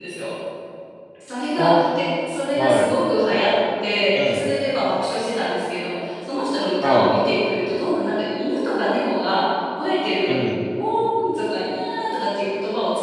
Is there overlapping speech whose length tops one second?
No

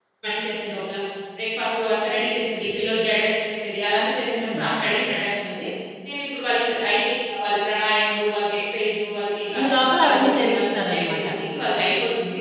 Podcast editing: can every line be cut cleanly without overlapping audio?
No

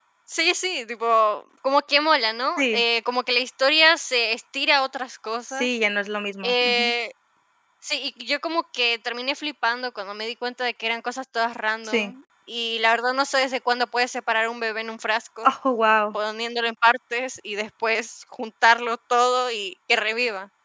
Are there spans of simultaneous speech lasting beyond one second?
No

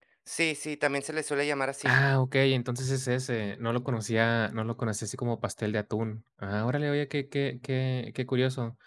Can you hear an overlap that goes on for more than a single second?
No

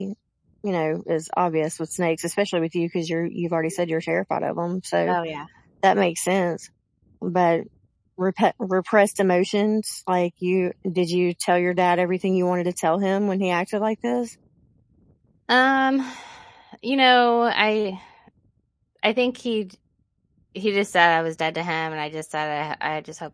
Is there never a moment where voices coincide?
Yes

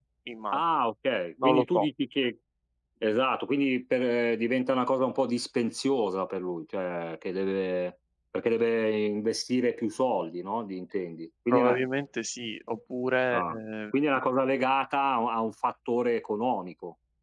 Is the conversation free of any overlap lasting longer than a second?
Yes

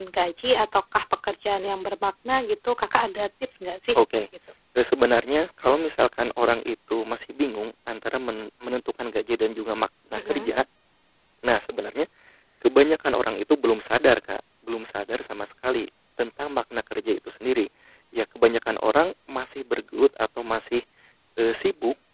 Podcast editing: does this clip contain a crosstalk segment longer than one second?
No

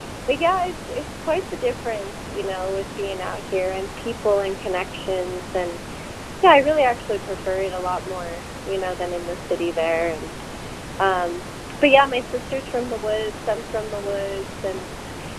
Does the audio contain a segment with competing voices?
No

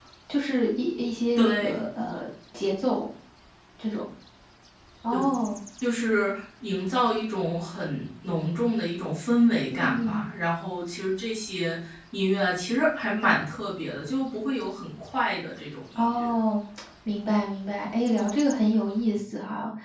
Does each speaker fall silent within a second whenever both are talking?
Yes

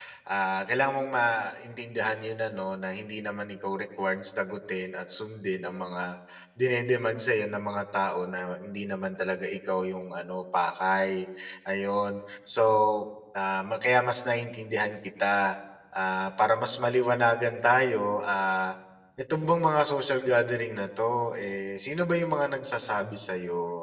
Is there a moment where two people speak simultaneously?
No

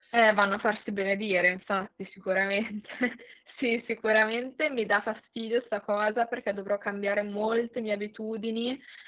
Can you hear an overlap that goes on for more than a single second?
No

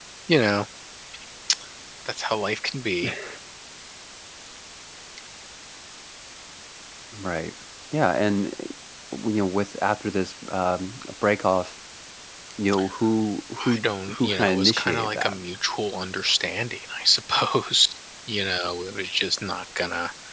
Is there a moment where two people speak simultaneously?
Yes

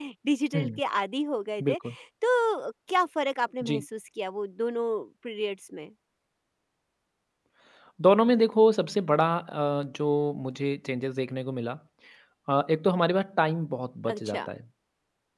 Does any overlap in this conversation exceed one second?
No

